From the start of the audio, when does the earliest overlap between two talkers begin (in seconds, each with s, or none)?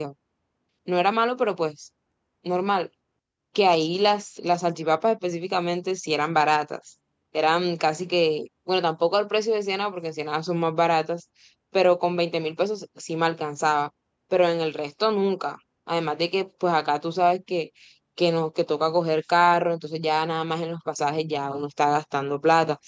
none